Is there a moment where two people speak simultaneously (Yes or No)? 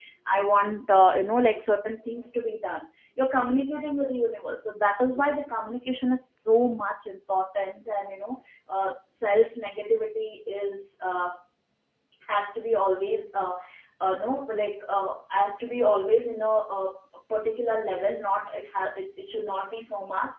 No